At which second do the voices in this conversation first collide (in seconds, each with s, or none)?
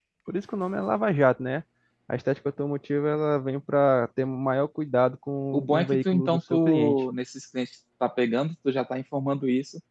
5.5 s